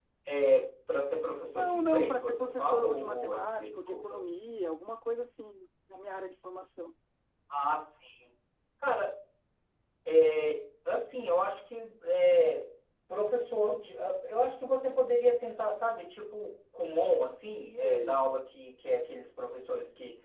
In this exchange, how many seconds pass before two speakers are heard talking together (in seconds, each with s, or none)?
1.6 s